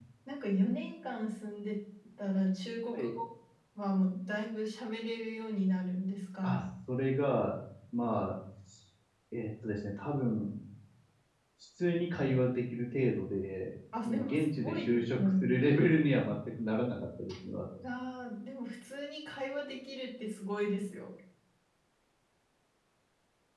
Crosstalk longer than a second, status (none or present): present